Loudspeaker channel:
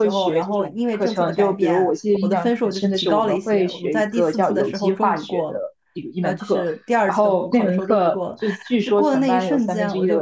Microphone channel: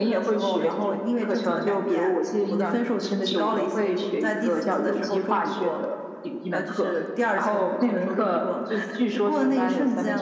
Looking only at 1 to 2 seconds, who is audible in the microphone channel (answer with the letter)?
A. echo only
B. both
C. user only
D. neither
A